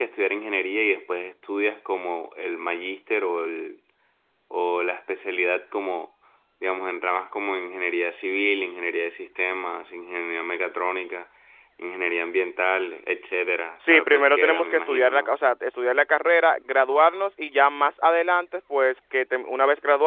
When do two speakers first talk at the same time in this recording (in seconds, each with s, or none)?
13.8 s